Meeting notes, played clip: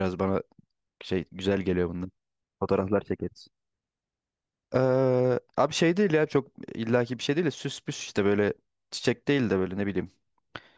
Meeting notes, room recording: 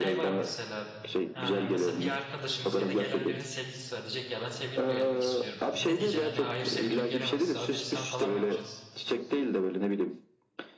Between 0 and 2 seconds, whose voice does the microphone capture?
both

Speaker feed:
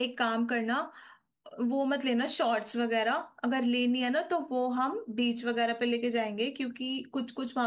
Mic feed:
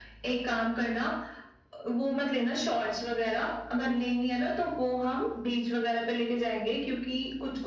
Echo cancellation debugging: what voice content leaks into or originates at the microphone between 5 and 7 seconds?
echo only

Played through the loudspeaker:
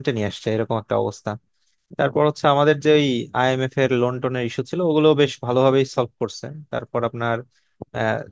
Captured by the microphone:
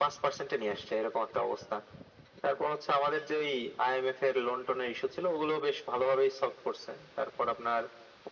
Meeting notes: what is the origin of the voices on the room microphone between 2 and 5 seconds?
echo only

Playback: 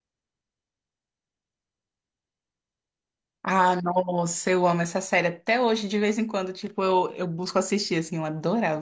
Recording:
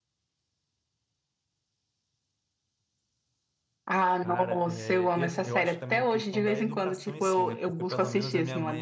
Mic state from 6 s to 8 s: both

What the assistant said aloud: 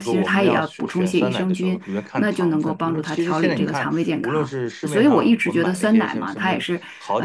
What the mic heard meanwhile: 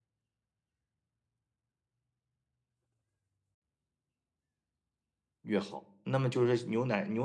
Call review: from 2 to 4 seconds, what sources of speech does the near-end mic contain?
neither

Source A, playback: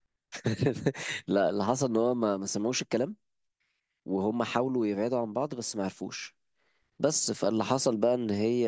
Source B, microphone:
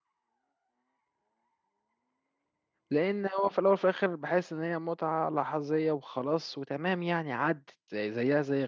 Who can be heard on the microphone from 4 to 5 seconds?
user only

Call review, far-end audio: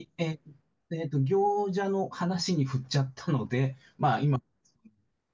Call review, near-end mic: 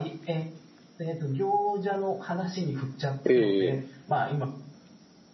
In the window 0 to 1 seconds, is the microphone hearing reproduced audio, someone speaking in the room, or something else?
echo only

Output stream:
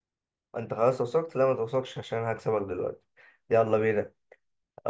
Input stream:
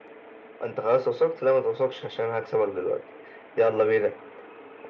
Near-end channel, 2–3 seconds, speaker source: echo only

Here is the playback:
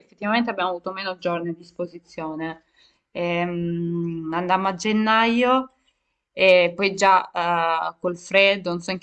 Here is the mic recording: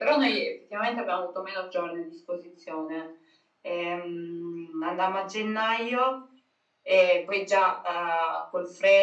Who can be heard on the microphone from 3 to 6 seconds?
echo only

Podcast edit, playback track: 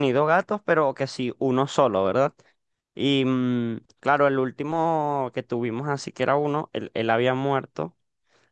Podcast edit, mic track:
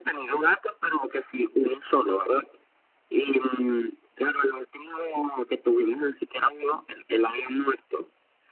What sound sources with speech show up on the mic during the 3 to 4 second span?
echo only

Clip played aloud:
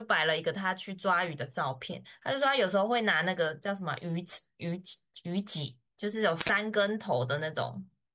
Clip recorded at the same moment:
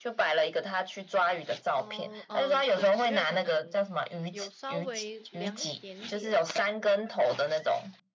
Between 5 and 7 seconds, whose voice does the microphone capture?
both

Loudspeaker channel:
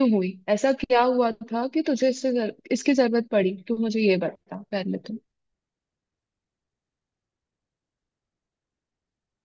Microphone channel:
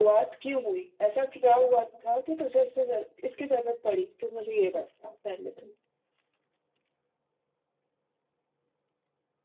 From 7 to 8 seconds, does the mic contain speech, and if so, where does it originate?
neither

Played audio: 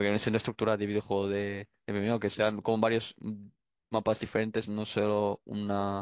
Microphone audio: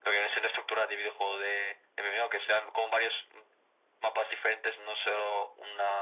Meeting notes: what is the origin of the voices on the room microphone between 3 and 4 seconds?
echo only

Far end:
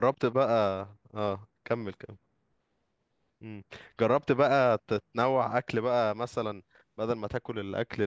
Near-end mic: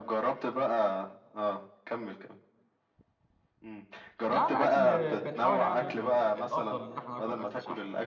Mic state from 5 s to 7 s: both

